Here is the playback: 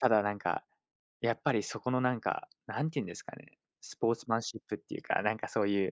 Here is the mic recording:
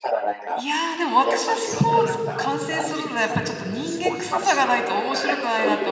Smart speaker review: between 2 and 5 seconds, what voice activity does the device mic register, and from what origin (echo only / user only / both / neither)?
both